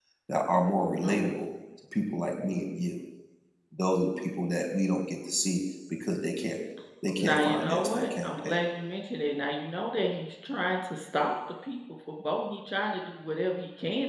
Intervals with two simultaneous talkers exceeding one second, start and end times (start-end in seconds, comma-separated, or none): 7.2-8.6